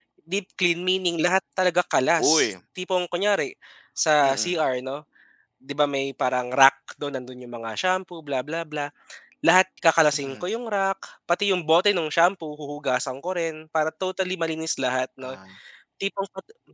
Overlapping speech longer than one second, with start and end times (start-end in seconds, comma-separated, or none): none